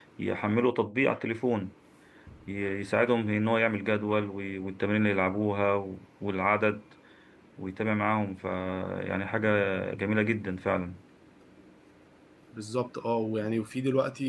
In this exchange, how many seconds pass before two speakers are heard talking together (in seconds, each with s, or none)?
none